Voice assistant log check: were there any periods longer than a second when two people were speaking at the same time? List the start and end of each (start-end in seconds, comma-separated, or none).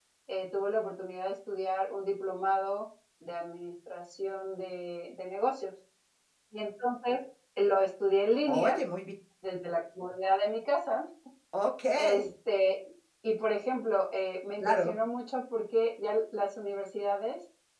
none